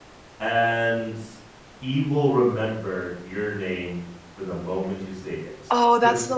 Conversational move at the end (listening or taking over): taking over